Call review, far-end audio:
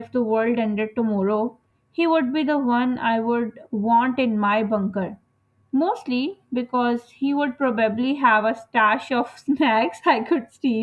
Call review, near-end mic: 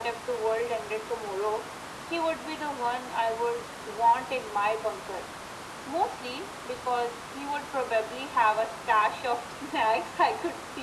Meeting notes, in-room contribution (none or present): none